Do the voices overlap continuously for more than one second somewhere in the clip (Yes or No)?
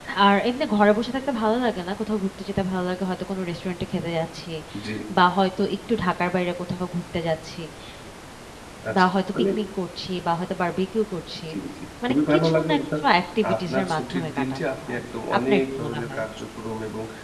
Yes